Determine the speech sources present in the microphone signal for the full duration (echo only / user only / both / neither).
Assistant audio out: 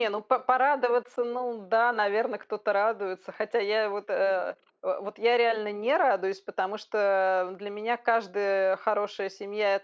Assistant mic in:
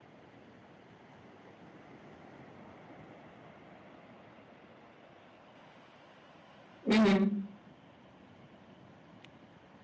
user only